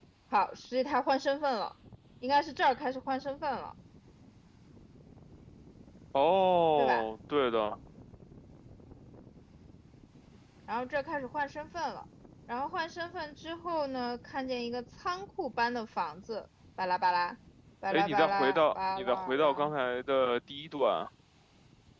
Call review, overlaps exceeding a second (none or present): present